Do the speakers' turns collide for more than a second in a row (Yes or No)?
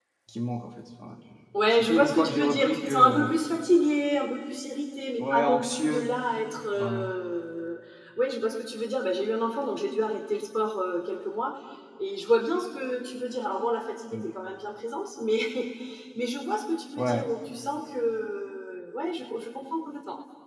Yes